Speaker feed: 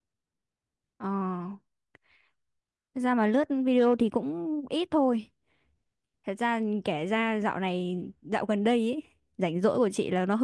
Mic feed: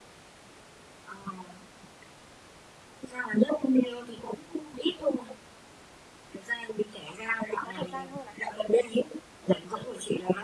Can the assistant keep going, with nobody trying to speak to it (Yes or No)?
No